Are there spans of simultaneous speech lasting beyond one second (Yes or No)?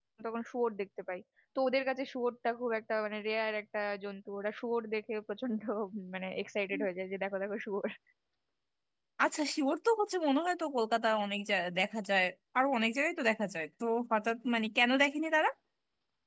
No